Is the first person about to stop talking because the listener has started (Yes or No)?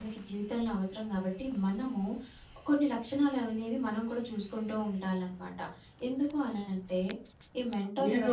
Yes